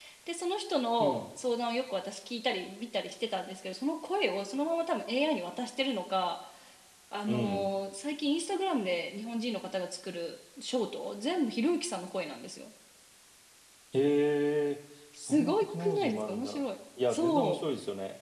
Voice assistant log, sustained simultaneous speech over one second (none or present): present